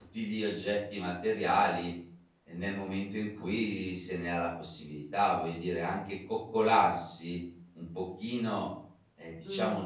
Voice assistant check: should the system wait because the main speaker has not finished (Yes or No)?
Yes